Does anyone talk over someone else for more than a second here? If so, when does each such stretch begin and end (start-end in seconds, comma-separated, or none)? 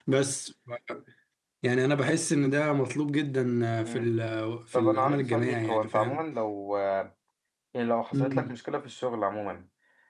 4.7-6.2